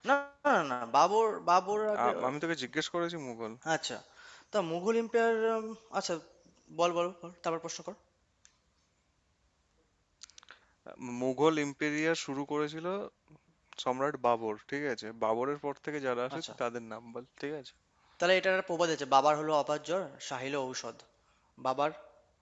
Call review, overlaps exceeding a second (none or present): none